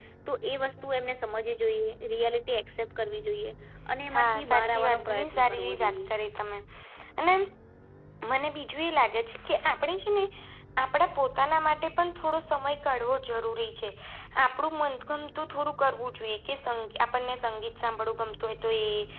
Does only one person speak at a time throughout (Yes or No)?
No